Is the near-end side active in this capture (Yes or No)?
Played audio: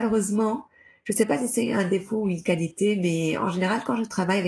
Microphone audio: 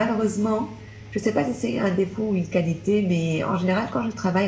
No